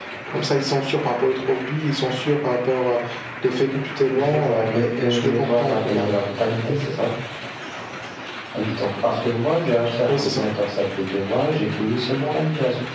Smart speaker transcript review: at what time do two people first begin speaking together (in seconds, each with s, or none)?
4.1 s